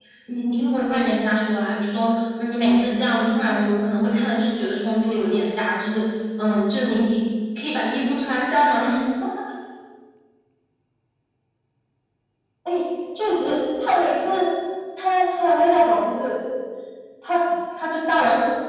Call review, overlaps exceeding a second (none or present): none